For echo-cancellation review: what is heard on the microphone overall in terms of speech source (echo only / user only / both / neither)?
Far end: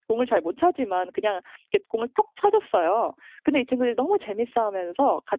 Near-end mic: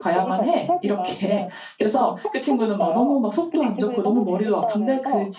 both